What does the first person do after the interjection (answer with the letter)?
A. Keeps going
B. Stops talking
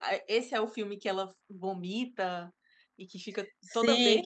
B